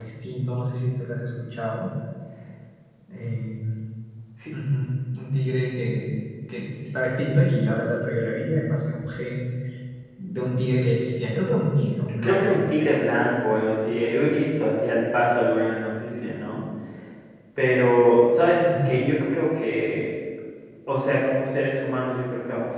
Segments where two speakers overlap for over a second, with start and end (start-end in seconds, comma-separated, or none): none